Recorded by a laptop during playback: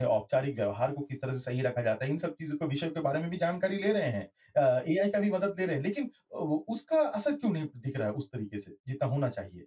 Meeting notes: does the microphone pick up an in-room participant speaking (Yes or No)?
Yes